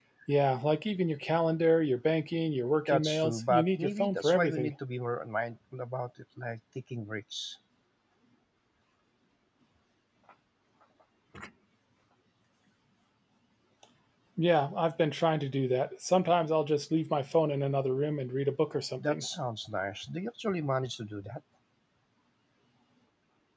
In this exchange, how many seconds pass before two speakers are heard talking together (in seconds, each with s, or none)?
2.9 s